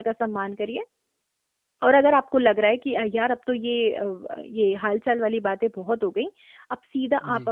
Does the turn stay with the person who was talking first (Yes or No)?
Yes